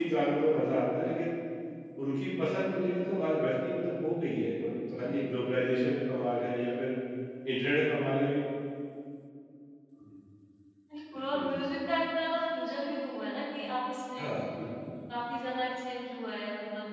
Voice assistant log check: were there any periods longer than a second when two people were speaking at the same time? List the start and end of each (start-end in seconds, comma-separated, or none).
none